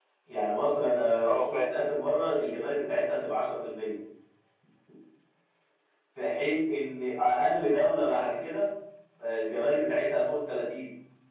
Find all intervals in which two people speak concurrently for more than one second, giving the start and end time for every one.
7.2-8.5

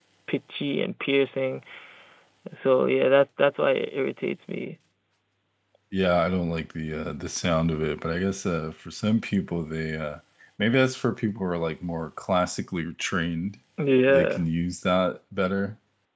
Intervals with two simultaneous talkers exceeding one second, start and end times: none

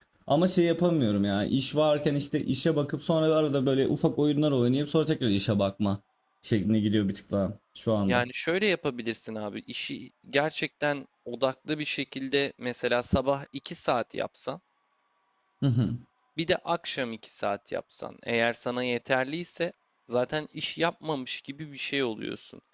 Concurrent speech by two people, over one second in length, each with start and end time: none

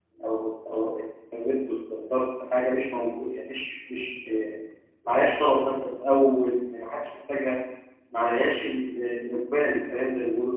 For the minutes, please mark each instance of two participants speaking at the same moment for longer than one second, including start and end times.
none

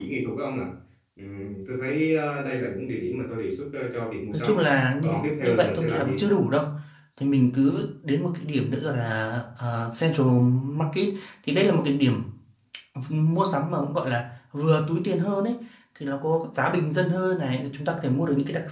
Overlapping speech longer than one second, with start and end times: 5.0-6.2

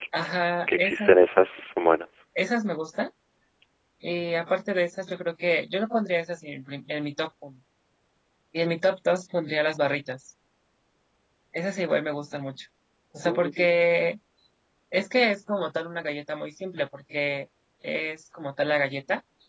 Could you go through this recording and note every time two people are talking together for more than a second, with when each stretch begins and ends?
none

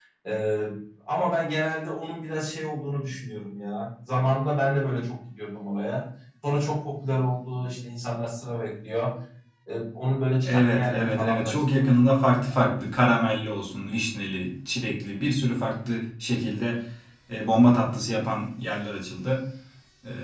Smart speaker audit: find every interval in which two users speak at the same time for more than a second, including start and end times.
10.4-11.9

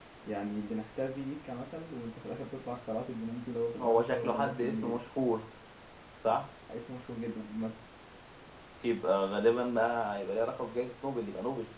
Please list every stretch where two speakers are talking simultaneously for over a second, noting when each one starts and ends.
3.8-5.0

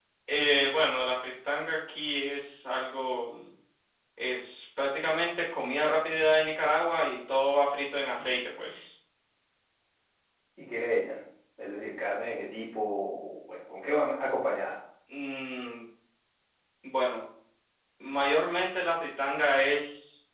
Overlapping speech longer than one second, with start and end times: none

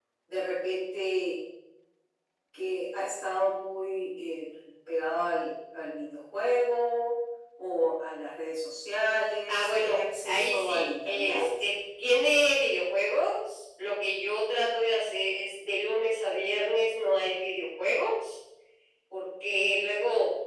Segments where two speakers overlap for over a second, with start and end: 9.5-11.5

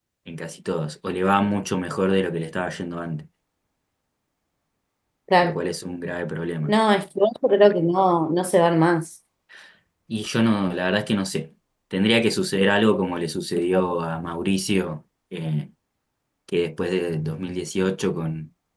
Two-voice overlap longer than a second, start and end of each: none

